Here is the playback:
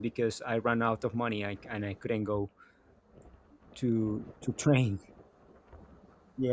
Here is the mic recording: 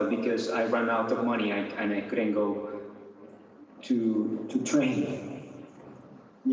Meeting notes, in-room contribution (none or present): none